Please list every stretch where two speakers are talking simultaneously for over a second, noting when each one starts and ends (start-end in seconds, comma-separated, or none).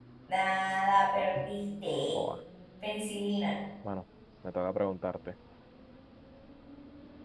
none